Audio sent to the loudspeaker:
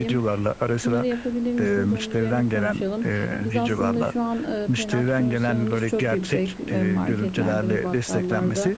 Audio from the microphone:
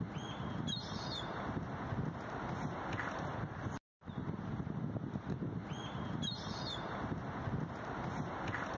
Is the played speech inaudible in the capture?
Yes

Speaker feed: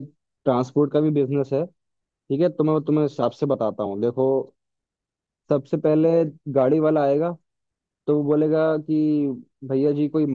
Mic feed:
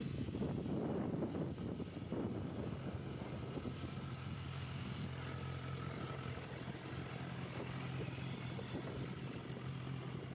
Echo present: No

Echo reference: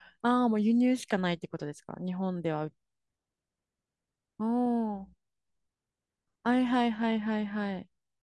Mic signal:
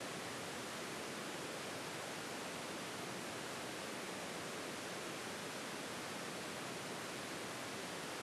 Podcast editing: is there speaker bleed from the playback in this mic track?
No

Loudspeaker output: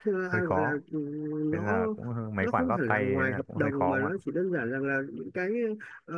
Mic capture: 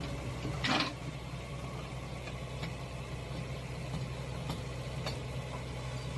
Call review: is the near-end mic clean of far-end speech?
Yes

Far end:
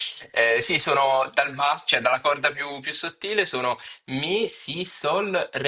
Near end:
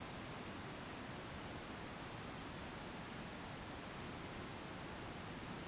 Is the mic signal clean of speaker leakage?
Yes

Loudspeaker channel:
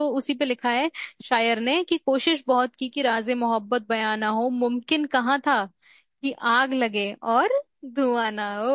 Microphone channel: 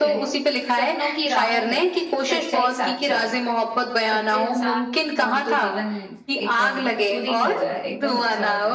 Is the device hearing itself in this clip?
Yes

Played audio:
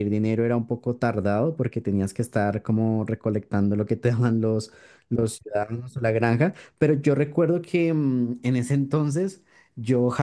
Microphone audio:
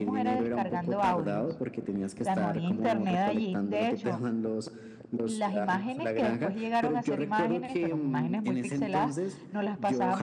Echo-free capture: No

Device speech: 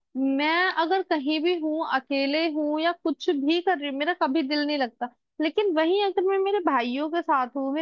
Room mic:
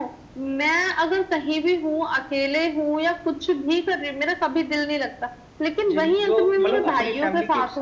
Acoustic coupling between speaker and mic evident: Yes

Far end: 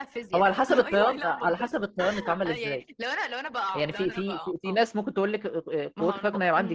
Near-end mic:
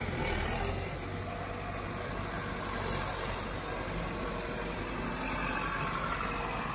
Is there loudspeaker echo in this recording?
No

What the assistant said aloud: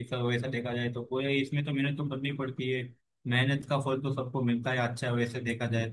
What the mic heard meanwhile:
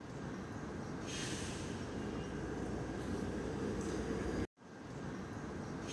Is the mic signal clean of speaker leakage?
Yes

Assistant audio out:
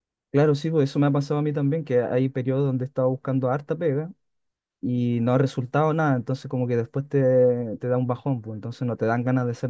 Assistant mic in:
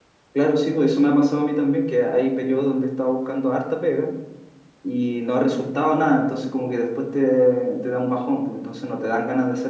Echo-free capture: No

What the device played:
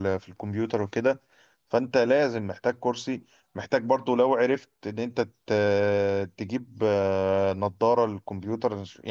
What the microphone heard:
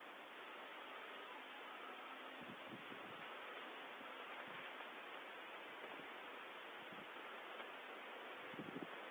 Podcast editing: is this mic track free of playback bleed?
Yes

